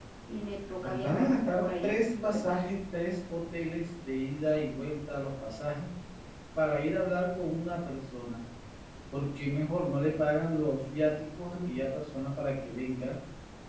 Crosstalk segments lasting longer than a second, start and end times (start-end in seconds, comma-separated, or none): 0.8-2.7